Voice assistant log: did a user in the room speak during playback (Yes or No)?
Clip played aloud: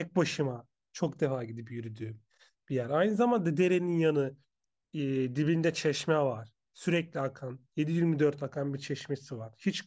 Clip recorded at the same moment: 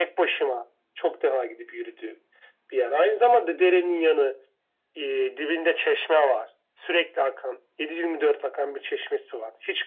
No